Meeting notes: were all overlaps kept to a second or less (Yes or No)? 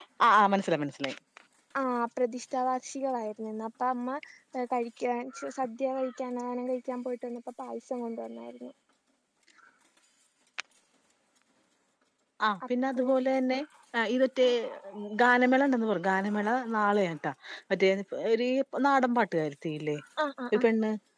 Yes